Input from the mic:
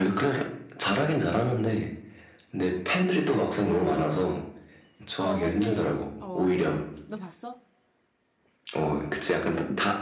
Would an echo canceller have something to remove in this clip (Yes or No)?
Yes